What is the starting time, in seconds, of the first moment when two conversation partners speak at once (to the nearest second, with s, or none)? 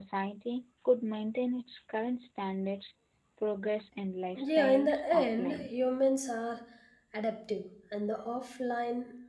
4 s